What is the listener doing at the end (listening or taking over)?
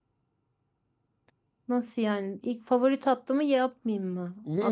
taking over